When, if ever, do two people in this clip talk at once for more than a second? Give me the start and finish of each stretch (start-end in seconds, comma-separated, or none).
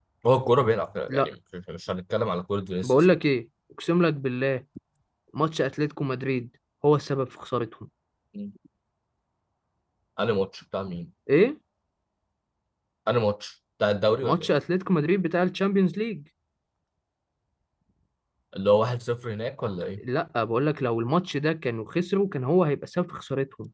none